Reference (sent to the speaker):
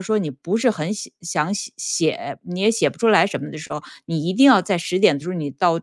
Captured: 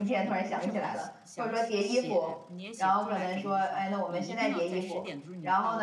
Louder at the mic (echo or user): user